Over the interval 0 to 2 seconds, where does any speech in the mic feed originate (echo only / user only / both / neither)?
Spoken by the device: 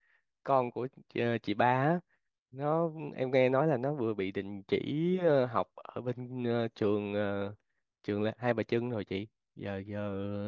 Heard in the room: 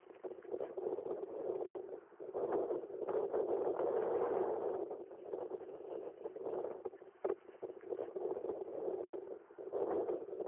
neither